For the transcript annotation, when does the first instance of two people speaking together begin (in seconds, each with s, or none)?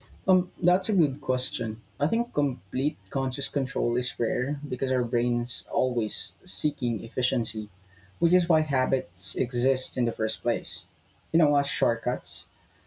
none